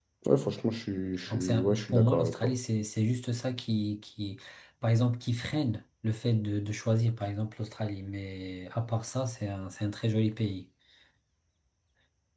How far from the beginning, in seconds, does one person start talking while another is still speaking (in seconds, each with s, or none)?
1.3 s